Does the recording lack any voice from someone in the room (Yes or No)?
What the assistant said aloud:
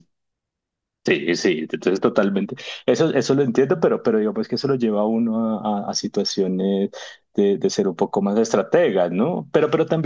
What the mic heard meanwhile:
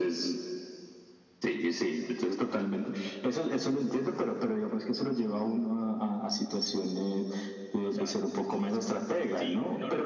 No